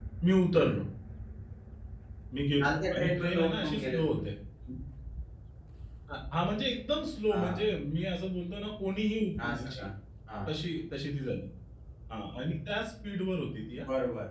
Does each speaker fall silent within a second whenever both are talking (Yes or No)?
No